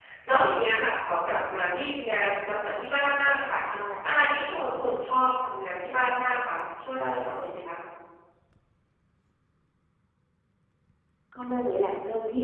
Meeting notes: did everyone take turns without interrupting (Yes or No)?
Yes